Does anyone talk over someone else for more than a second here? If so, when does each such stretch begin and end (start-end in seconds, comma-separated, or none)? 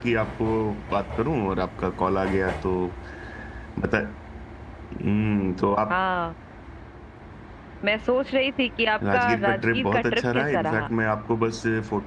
9.1-10.9